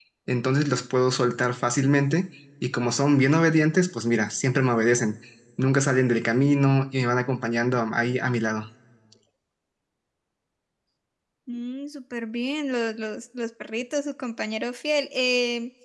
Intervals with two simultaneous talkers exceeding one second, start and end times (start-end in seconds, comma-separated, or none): none